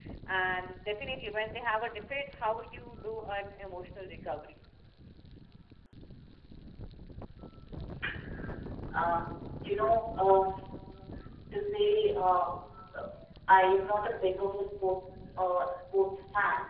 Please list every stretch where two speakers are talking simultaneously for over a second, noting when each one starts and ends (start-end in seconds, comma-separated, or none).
none